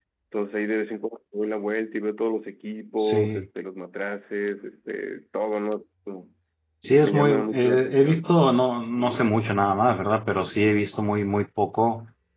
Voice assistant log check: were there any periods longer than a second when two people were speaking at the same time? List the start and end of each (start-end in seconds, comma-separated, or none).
7.0-8.3